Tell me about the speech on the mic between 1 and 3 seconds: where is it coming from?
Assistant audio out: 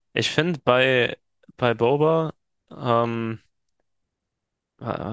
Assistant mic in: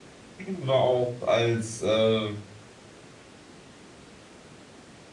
user only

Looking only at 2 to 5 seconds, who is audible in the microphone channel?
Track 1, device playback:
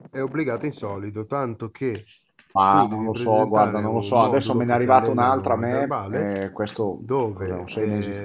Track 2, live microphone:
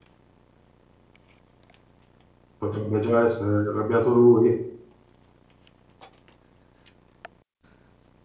user only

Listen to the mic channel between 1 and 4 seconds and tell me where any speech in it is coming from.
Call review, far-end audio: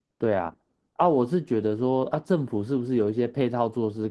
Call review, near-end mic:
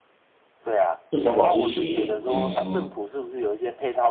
both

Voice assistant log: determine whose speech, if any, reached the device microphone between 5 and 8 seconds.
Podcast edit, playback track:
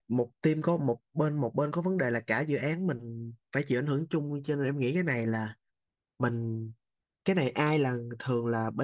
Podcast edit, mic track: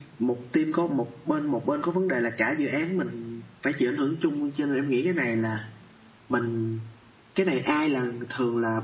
echo only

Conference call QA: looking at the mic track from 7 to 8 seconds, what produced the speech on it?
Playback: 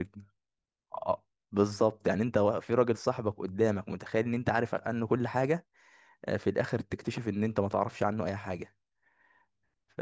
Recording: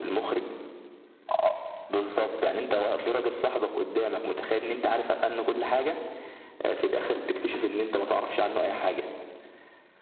echo only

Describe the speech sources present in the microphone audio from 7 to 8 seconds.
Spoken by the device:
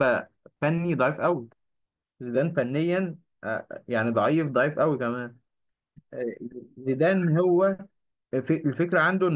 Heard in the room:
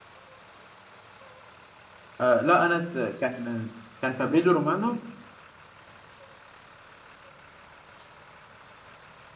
neither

